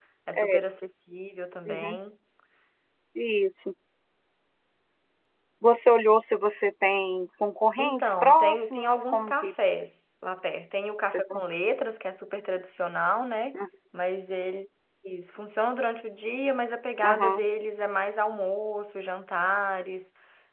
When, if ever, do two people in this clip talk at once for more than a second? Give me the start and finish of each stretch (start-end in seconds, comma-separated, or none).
7.8-9.5